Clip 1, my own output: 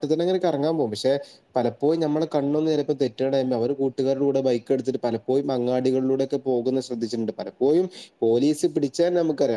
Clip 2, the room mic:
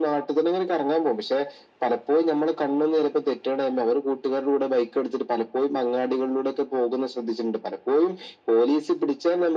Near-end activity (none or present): none